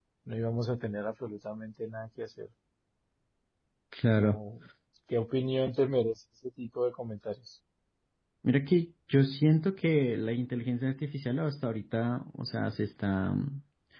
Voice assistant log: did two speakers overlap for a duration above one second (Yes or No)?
No